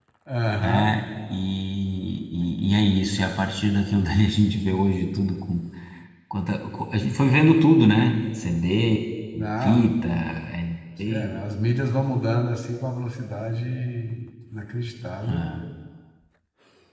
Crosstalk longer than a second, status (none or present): none